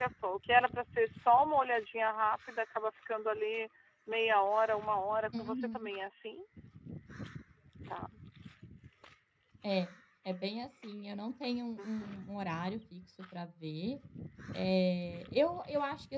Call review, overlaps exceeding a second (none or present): none